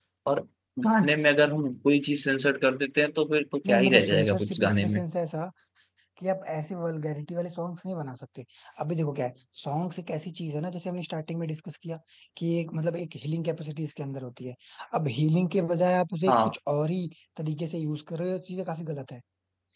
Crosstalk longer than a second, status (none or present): present